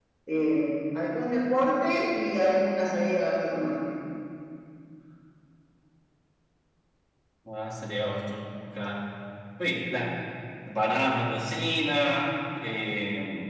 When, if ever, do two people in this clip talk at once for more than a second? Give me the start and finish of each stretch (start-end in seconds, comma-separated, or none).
none